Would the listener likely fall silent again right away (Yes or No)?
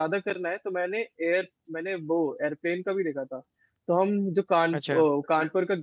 Yes